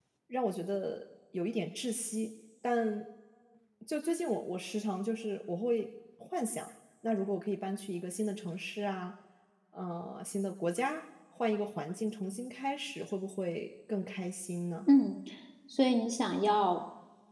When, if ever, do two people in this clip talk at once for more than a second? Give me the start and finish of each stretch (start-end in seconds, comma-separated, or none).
none